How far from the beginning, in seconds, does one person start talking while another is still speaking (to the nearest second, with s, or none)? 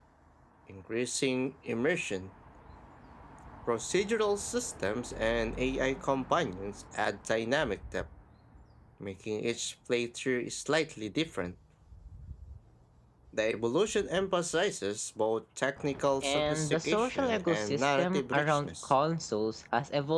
16 s